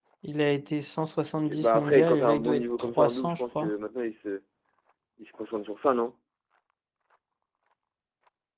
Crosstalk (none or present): present